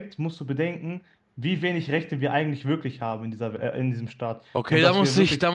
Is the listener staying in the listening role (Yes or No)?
No